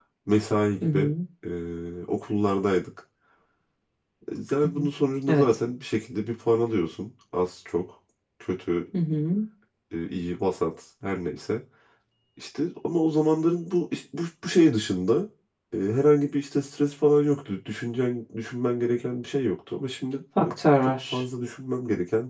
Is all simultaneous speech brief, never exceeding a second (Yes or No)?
Yes